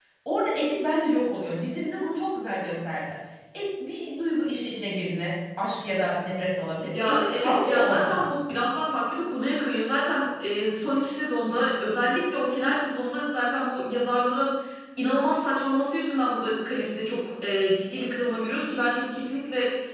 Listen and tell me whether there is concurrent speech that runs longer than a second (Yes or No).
Yes